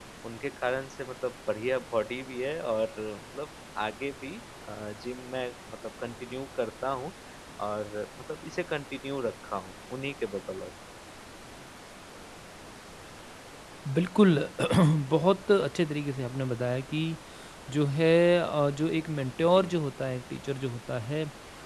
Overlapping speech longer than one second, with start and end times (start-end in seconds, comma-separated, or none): none